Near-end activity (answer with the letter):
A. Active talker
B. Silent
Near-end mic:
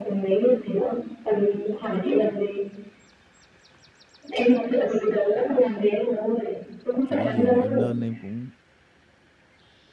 A